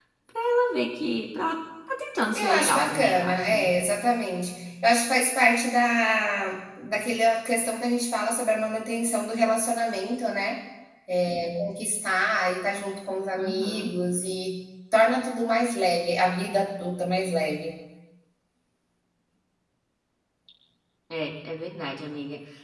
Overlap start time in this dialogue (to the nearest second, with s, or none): 2 s